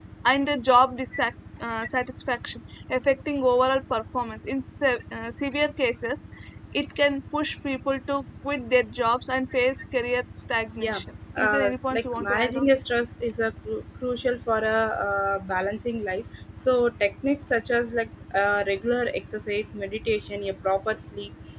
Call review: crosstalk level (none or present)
present